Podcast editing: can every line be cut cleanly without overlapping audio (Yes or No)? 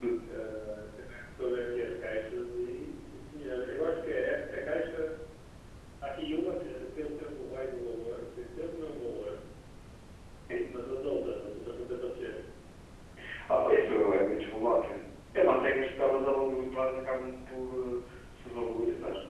Yes